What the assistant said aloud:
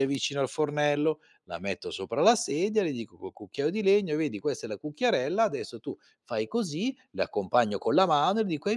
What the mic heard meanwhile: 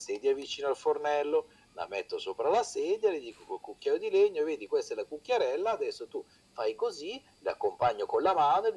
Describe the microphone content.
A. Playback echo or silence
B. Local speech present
A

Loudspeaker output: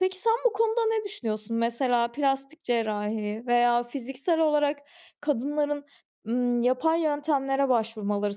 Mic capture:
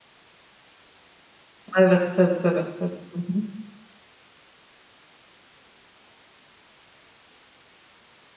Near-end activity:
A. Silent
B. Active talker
B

